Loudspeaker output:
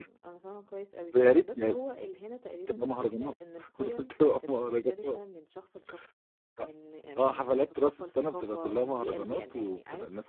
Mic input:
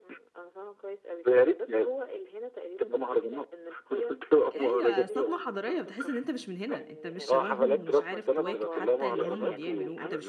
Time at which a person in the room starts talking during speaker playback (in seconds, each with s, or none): 4.4 s